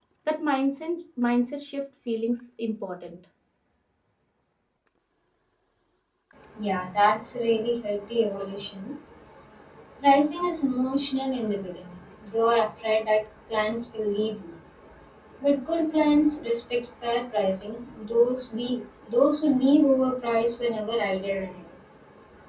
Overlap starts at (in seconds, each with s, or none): none